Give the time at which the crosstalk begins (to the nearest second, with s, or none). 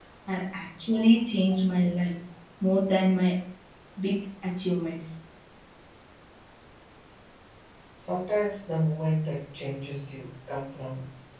none